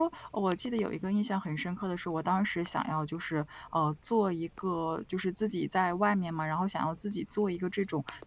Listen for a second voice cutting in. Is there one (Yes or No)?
No